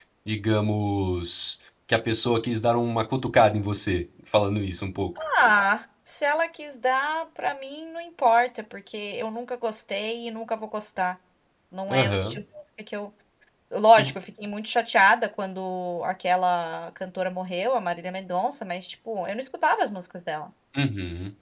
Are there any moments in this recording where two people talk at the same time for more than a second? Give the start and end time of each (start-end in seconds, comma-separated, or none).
none